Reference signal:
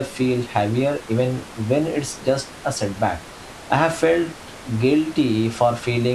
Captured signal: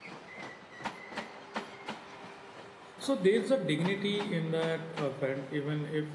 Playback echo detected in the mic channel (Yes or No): No